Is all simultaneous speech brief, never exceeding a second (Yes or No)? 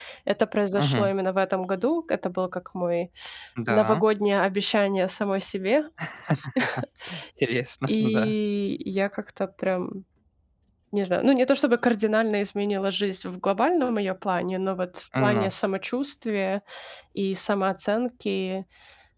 Yes